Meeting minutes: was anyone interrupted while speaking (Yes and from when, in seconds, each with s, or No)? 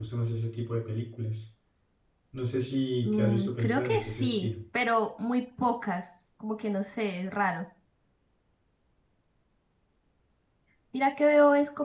Yes, from 3.0 s